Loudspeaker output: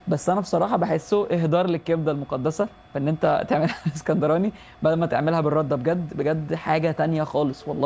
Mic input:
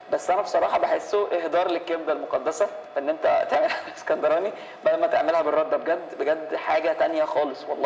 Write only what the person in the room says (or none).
none